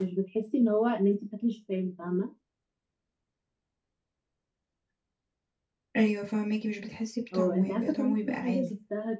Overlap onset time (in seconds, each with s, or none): 7.3 s